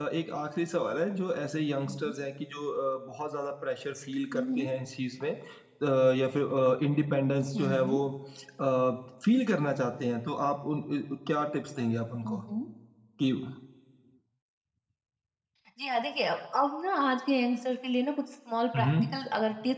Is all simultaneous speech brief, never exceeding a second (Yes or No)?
Yes